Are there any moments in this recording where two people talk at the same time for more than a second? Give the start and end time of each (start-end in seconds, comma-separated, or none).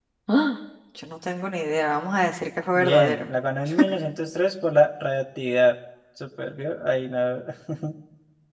none